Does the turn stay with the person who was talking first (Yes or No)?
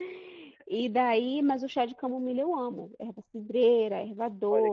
No